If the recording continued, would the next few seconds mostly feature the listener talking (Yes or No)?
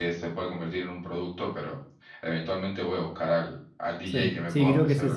Yes